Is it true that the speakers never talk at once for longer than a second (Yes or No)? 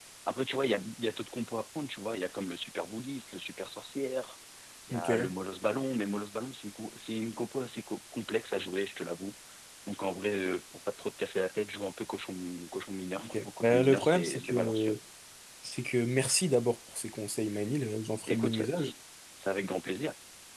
No